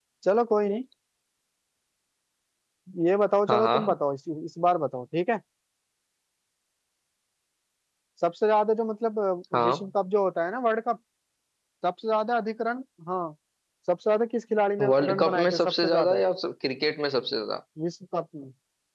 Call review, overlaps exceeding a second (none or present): present